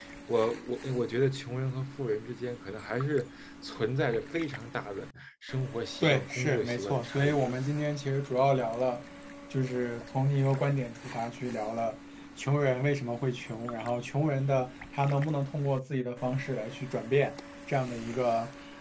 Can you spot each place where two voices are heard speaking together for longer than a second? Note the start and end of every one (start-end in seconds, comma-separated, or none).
6.0-7.4